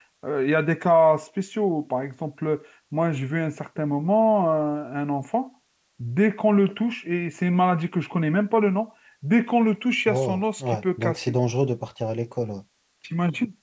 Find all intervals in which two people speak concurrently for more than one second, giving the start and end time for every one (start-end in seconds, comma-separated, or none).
10.1-11.3